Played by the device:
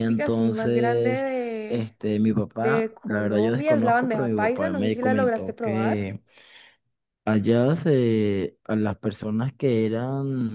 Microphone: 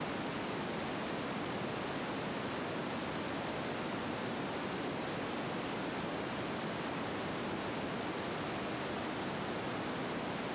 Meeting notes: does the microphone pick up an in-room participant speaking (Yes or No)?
No